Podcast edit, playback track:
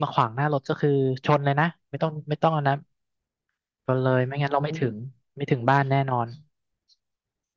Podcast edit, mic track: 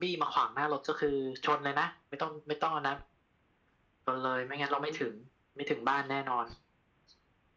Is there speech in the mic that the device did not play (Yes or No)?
No